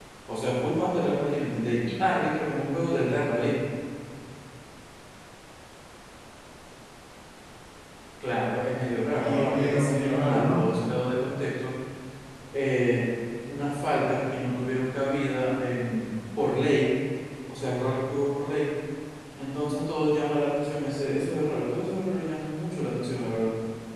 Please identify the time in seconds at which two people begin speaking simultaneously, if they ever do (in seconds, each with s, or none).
9.1 s